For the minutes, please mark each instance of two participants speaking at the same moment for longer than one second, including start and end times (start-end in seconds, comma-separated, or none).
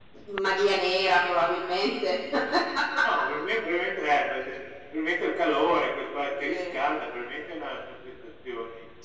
none